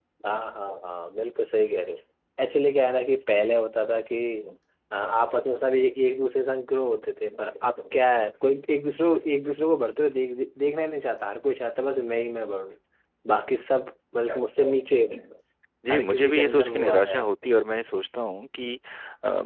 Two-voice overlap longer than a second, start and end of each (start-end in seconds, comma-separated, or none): 15.9-17.2